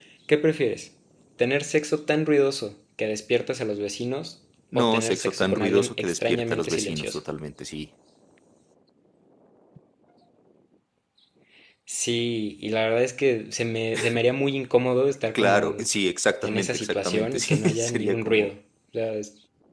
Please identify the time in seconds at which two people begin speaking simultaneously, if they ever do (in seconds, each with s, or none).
4.8 s